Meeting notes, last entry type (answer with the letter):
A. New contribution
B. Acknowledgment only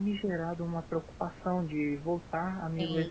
B